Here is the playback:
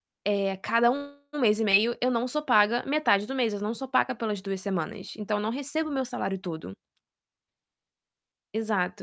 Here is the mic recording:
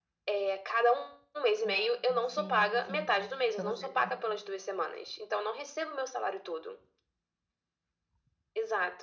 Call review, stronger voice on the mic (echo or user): echo